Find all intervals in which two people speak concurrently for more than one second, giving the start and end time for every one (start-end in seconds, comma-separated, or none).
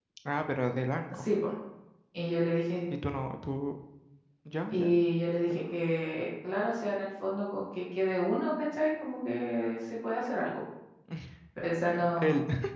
none